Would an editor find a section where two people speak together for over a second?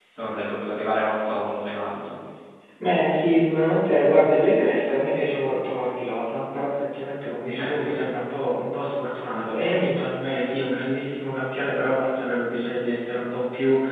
No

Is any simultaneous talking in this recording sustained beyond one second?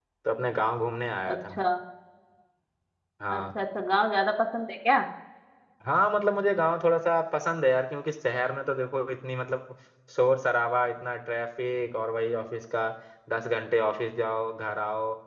No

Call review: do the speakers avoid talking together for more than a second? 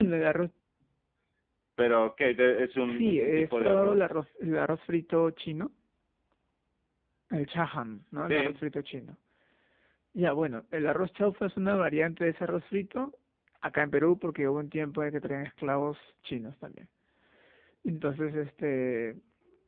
No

